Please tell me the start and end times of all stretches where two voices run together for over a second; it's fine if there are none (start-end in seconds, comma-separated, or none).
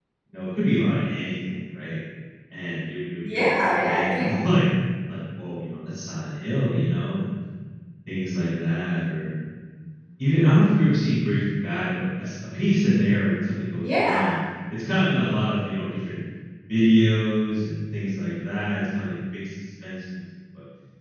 3.2-4.5